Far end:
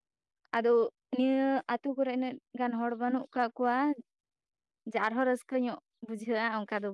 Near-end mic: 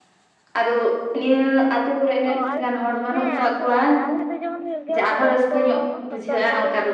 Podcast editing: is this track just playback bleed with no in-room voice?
No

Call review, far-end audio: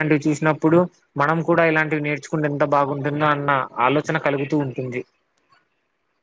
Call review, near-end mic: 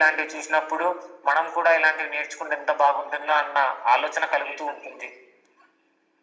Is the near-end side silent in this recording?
Yes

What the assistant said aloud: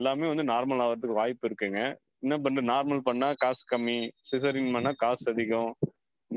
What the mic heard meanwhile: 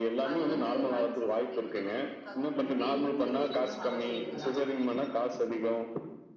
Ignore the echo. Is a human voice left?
Yes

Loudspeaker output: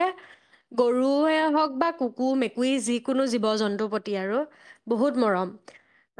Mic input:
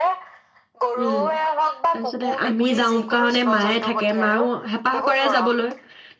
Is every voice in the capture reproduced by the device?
No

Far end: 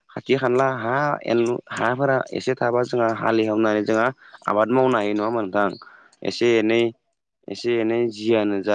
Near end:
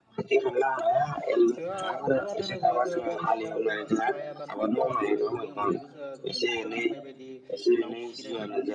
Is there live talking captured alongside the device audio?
Yes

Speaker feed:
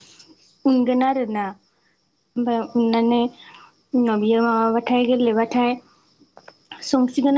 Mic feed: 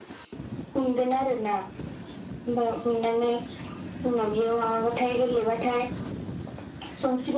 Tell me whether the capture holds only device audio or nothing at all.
Yes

